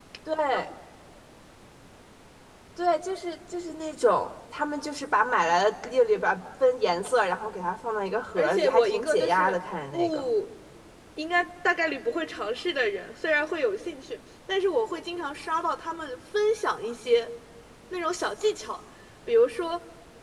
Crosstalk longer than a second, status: present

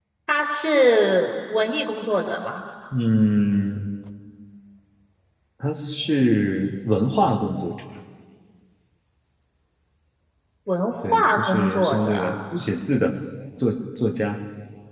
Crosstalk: present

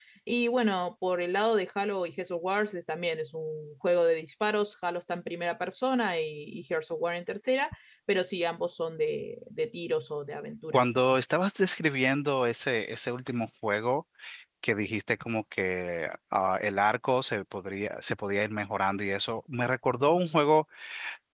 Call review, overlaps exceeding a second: none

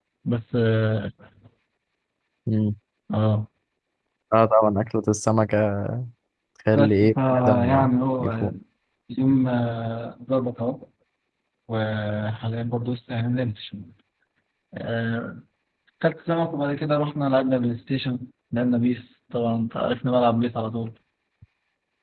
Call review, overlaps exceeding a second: present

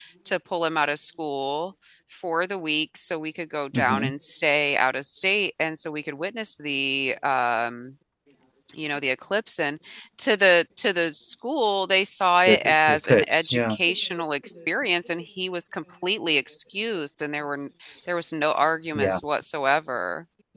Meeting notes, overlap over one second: present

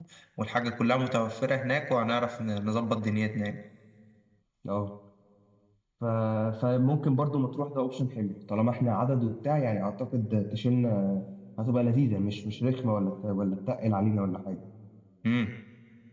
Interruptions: none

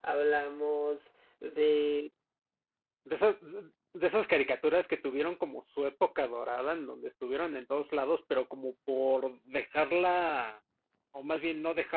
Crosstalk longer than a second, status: none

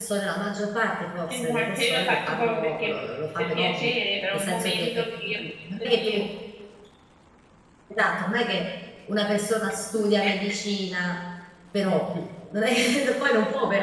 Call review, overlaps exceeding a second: present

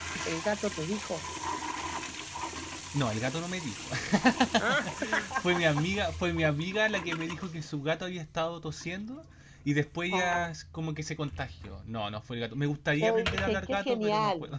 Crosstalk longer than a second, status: present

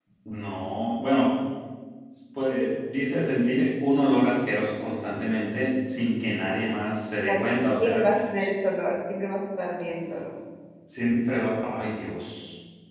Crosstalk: present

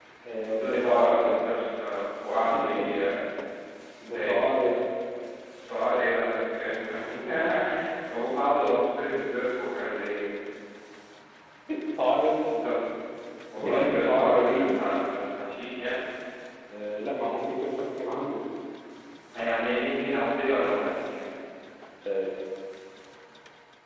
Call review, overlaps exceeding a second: present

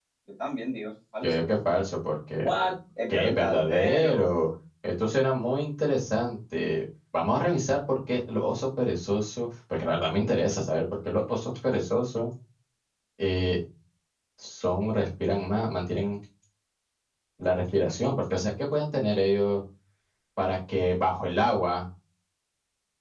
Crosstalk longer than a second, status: present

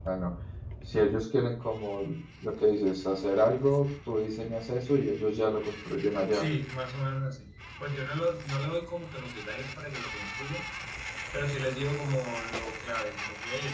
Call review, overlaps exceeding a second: none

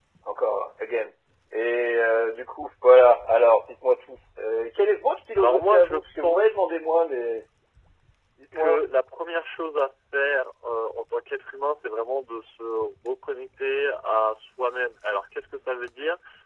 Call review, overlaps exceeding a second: present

